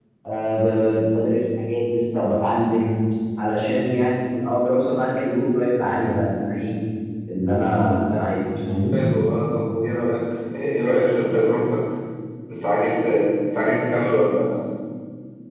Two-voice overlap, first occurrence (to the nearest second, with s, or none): none